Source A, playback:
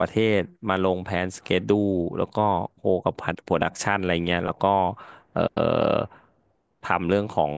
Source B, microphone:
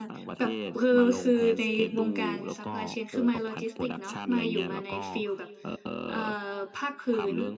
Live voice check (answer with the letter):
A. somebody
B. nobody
A